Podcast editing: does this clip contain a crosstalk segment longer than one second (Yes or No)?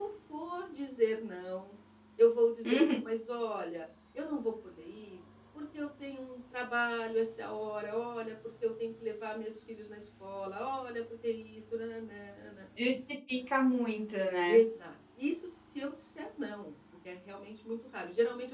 No